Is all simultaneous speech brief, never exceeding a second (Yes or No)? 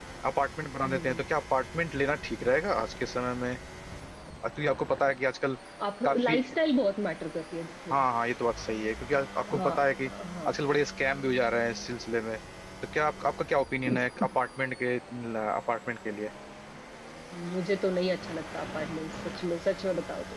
Yes